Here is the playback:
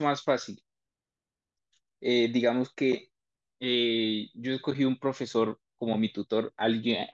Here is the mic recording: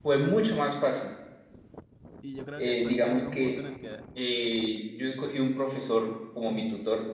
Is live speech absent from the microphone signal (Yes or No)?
No